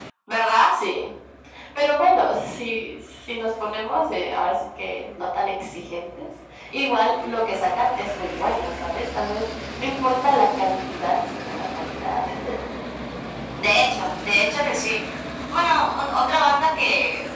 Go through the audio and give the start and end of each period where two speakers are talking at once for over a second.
none

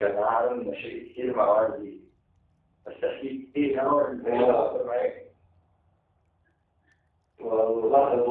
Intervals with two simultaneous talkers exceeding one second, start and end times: none

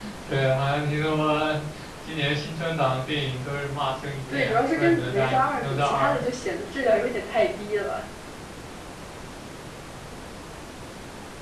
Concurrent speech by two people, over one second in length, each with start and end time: 4.3-6.2

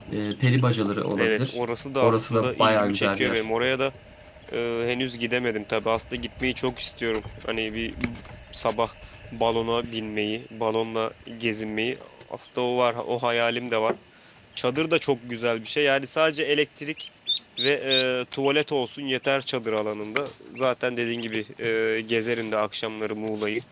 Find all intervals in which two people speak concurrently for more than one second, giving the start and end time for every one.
2.0-3.4

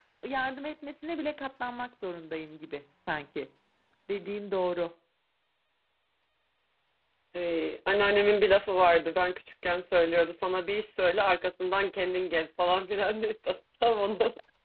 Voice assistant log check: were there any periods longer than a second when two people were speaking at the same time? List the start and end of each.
none

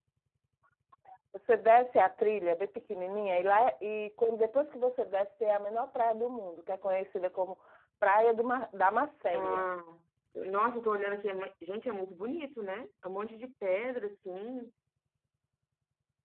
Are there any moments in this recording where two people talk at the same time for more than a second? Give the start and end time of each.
none

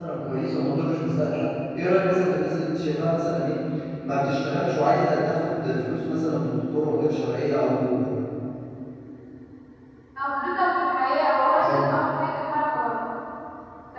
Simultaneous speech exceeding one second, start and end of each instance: none

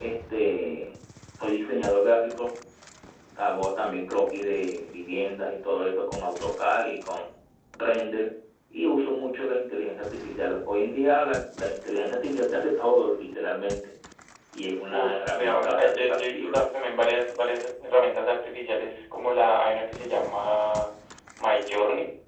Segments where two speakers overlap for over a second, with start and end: 14.9-16.6

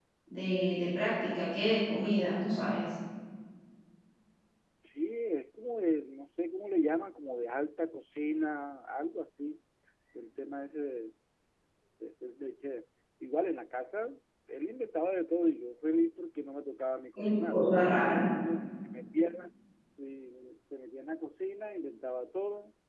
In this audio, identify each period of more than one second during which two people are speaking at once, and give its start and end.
none

